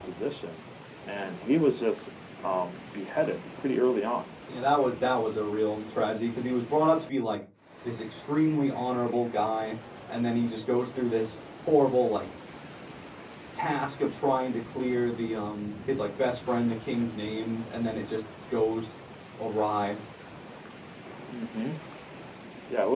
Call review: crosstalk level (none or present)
none